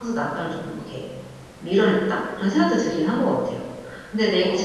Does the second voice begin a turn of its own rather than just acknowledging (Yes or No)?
Yes